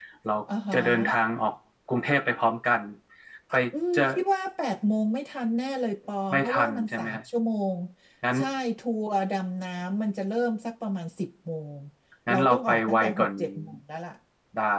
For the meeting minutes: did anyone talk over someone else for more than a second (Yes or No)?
Yes